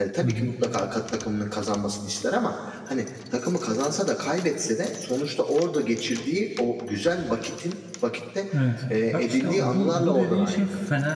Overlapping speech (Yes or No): Yes